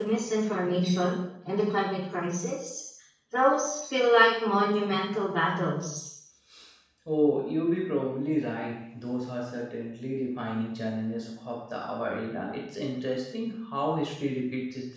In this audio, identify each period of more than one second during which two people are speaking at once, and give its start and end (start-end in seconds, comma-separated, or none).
none